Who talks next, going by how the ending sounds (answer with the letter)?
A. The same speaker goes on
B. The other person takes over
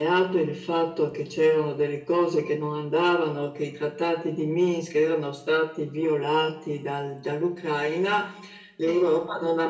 A